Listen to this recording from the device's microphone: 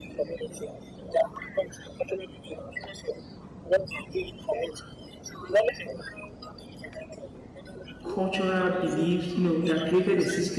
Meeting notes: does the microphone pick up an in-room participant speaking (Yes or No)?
Yes